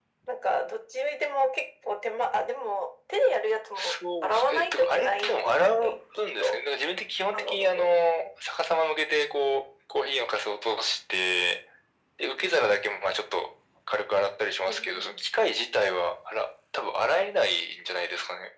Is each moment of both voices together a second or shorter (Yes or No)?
No